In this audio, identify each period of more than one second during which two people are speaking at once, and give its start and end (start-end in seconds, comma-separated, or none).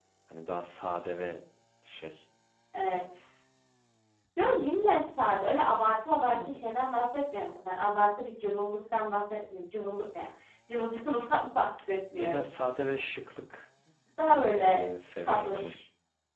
none